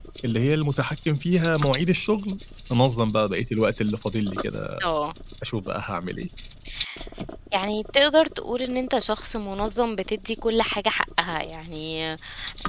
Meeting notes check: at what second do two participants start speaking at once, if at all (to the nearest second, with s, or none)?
none